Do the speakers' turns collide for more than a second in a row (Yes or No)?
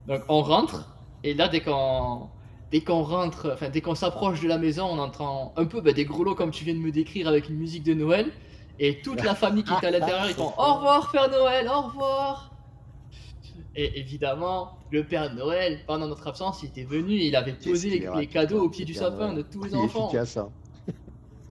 Yes